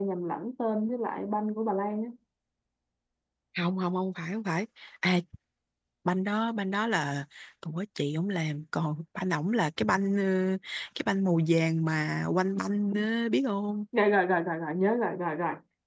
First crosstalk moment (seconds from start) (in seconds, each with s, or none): none